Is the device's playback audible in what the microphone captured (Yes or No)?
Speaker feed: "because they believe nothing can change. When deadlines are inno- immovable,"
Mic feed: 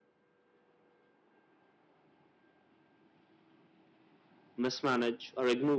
No